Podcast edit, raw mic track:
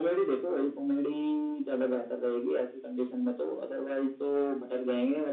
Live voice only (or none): none